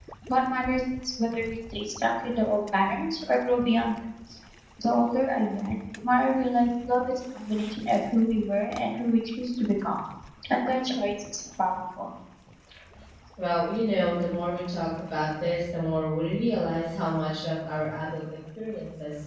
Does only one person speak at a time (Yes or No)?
Yes